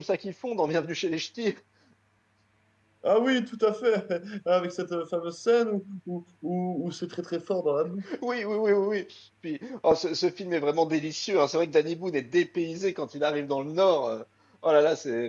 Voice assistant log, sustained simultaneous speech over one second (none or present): none